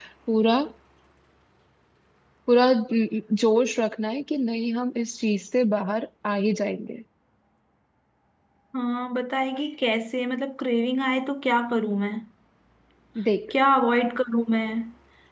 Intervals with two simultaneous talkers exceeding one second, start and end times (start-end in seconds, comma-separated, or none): none